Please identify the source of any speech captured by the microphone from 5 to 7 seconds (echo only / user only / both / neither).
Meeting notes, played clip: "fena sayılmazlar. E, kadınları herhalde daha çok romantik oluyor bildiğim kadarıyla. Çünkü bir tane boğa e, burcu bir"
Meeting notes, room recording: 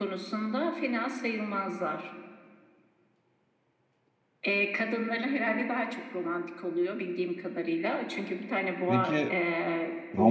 echo only